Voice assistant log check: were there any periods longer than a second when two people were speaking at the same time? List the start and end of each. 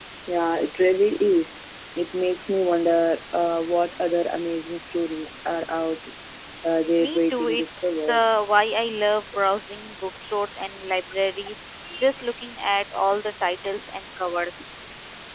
7.0-8.2

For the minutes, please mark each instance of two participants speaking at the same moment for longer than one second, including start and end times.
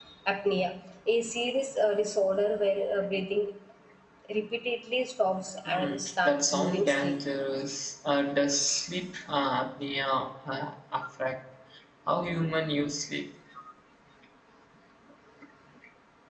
5.6-7.2

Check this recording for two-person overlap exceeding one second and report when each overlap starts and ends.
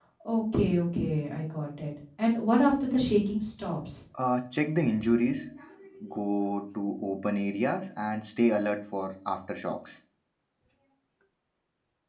none

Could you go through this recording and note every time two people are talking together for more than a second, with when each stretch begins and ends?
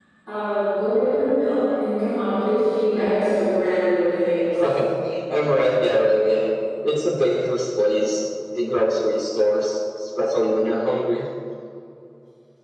none

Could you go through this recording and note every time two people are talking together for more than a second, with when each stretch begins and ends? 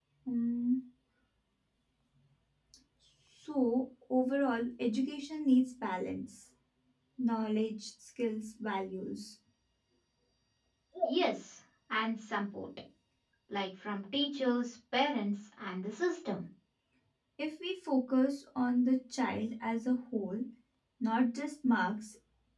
none

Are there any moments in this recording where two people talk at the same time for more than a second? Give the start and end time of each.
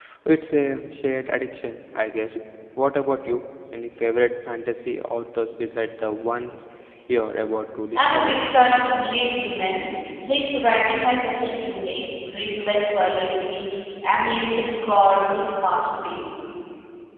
none

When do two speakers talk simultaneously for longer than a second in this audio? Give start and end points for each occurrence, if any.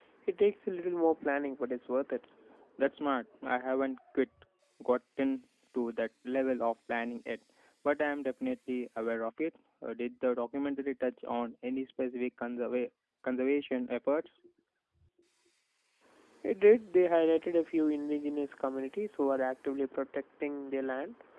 none

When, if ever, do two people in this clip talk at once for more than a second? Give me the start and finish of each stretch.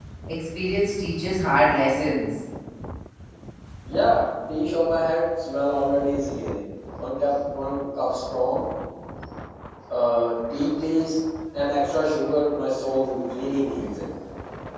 none

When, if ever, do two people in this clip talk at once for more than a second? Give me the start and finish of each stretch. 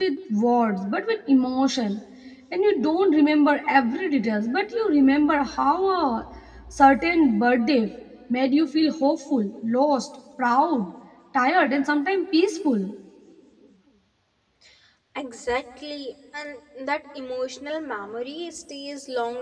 none

